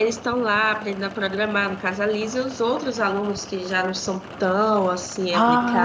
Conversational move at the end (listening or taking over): taking over